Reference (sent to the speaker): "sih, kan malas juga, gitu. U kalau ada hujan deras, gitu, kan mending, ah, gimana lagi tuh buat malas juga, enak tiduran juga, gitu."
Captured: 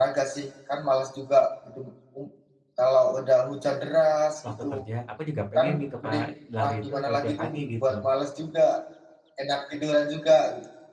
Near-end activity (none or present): present